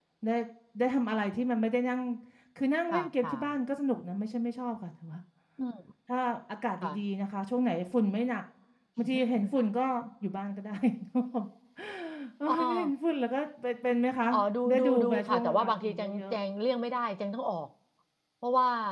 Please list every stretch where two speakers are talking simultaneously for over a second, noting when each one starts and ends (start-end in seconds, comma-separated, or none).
14.7-16.3